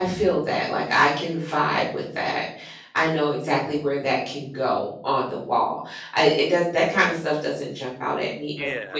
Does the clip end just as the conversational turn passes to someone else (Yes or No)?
Yes